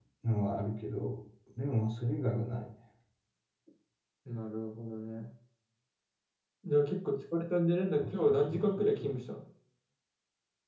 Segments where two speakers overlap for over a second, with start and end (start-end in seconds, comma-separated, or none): 8.0-9.2